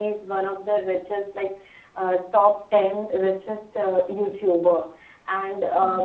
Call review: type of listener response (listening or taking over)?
listening